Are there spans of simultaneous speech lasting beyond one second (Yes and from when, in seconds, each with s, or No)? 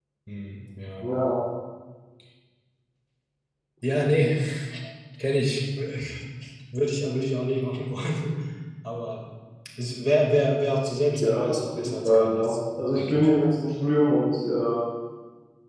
Yes, from 11.2 s